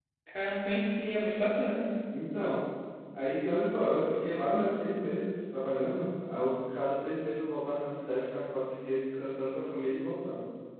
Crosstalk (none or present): none